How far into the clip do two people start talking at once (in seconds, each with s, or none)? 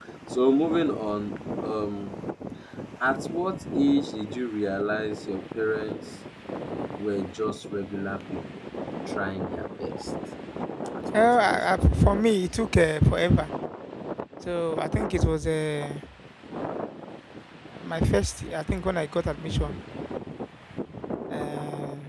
11.1 s